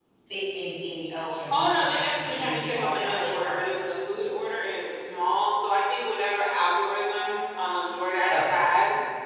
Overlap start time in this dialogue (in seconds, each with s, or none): 1.5 s